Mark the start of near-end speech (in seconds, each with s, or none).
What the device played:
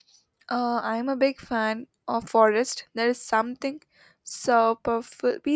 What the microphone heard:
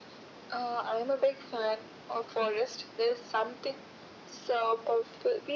none